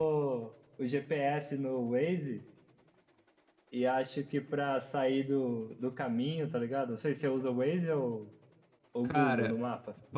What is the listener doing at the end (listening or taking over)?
taking over